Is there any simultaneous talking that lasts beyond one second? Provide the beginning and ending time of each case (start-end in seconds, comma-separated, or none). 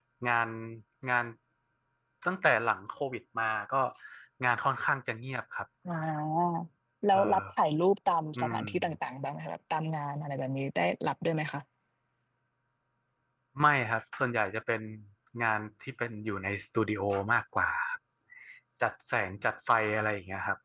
none